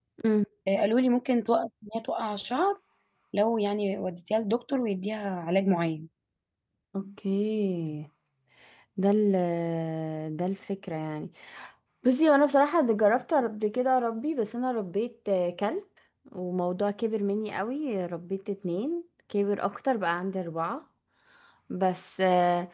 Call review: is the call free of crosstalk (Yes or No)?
Yes